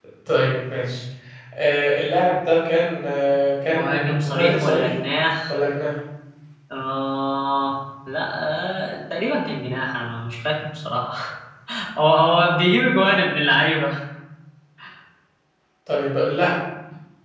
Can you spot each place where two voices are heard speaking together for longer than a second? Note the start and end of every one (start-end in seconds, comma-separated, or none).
3.7-4.9